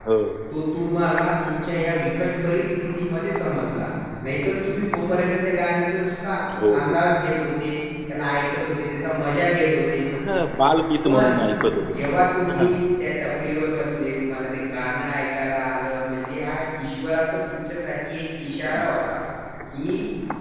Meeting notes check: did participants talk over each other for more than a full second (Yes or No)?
No